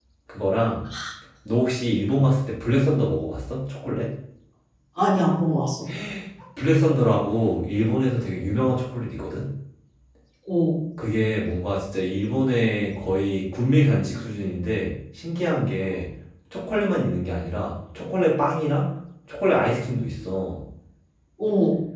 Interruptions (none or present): none